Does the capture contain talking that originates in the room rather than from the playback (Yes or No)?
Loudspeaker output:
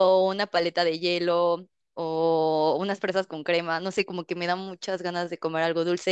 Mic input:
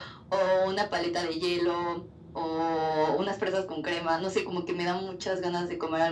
No